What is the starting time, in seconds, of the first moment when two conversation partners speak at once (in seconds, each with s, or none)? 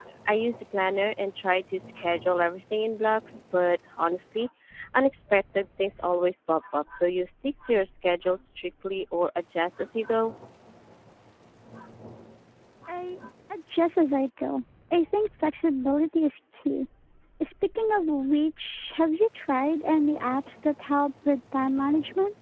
none